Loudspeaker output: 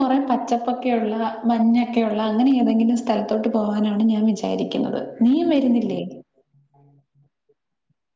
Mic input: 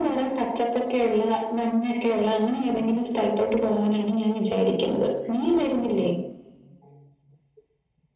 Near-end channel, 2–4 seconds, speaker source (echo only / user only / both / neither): echo only